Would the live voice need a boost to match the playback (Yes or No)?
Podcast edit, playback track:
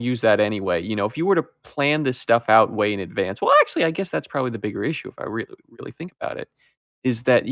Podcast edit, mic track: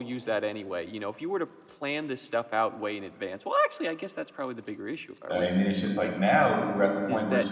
No